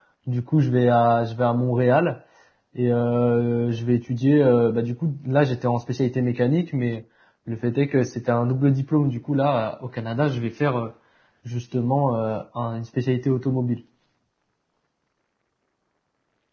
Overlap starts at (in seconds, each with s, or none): none